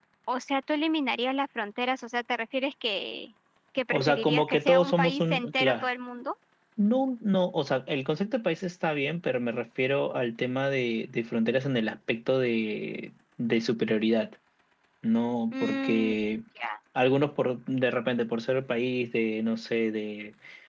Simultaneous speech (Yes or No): Yes